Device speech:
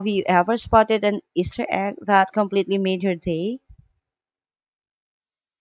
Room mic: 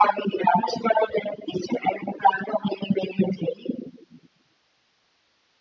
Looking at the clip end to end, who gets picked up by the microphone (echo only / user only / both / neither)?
echo only